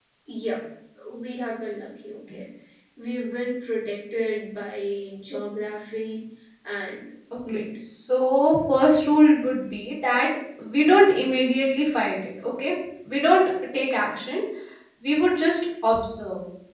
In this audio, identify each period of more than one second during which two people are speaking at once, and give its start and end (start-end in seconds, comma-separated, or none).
none